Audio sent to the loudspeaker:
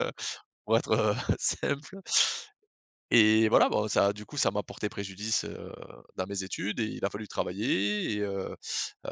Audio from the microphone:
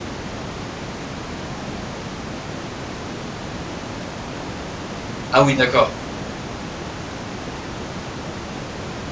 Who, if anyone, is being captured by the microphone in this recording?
user only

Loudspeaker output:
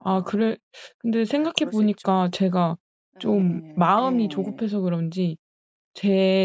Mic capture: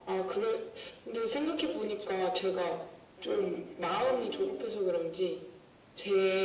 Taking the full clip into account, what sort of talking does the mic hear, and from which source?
echo only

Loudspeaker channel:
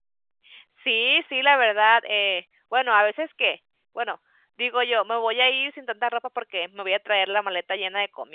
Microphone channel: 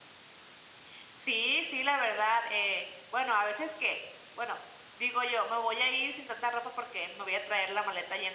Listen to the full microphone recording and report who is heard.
echo only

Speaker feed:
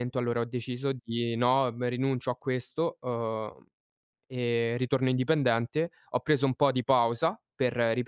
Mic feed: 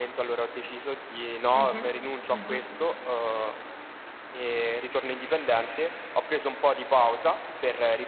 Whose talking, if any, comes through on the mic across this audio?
both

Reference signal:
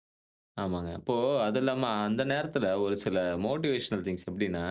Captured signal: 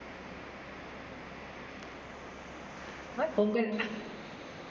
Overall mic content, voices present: user only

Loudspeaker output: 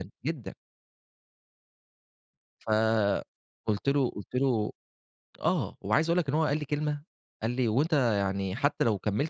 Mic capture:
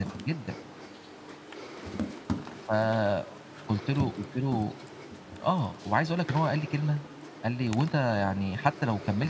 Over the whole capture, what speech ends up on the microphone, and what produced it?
echo only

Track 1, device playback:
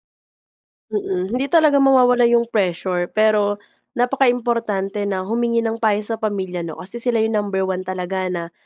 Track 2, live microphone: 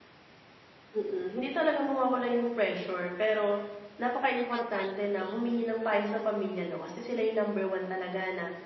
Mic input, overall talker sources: both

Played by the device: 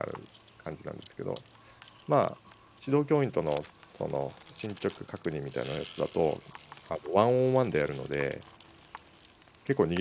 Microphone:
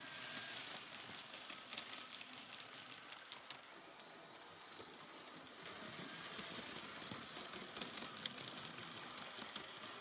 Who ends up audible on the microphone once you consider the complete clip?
neither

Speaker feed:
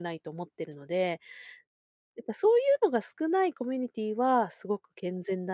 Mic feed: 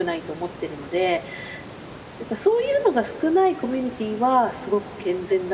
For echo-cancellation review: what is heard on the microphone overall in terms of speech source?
echo only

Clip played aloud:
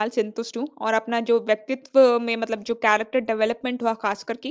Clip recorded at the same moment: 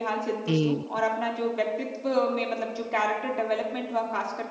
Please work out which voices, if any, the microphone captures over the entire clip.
both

